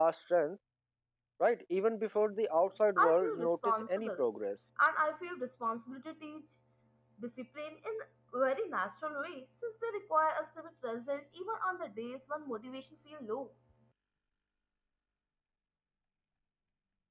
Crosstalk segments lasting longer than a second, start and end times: 3.0-4.2

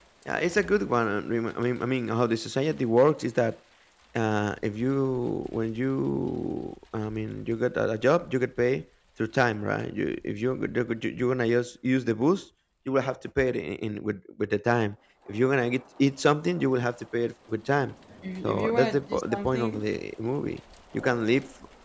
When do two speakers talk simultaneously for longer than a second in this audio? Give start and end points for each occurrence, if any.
18.4-19.8

